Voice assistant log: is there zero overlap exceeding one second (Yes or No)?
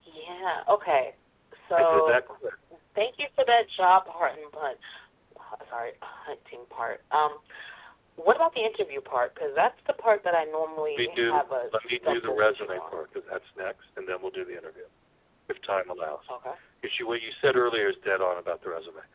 No